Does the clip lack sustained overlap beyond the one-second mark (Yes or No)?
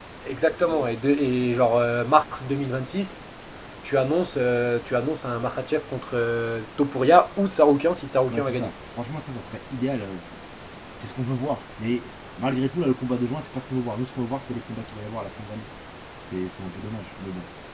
Yes